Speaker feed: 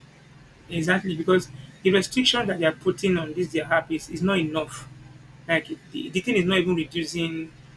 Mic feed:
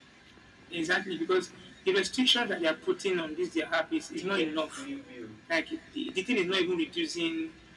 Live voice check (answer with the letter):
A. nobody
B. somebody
B